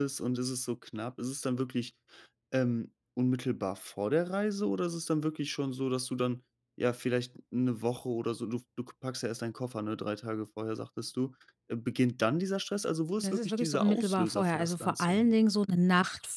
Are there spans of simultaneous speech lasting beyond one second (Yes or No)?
Yes